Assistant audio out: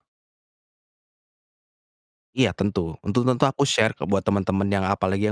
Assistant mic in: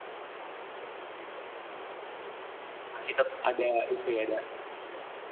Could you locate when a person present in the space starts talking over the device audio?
2.9 s

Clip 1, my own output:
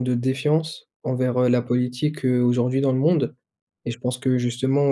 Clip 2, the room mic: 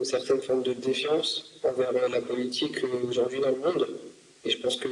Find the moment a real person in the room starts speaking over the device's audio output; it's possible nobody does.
none

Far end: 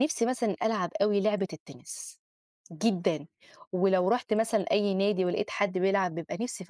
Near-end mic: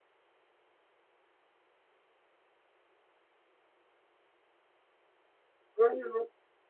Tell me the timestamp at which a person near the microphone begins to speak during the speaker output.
5.8 s

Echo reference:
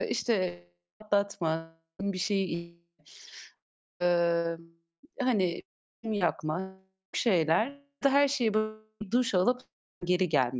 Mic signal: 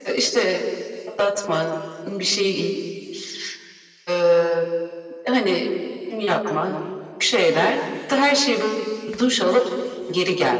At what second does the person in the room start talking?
none

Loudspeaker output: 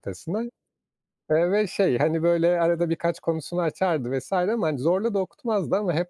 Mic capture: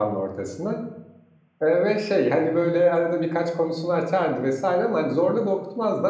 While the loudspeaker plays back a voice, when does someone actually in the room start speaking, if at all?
none

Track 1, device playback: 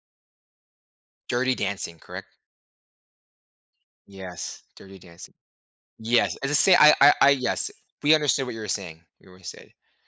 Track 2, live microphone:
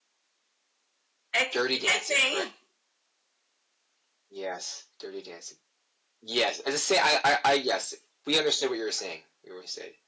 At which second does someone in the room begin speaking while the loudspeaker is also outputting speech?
1.3 s

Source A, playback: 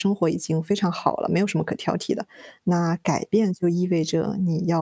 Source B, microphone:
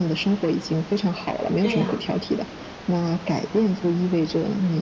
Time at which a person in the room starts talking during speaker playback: 1.6 s

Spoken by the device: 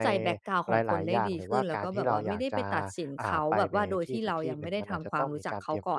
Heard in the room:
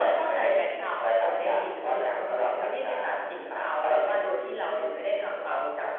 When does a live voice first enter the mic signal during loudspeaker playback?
none

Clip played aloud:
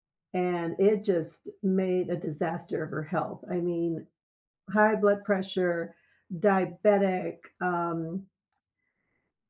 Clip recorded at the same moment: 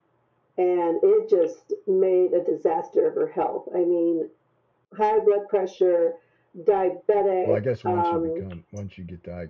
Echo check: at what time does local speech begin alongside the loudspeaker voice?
7.4 s

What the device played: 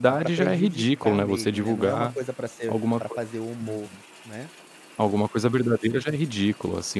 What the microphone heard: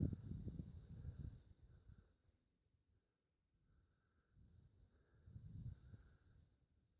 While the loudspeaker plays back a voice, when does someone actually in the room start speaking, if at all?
none

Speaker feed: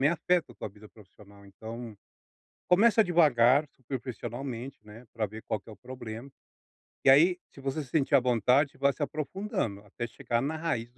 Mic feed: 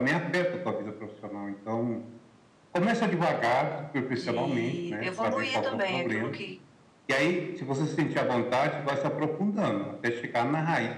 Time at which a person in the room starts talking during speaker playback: 4.0 s

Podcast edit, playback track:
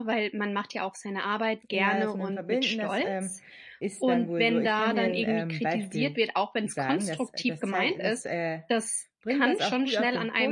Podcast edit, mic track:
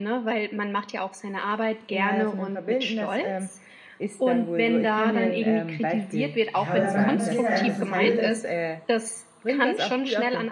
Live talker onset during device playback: 6.5 s

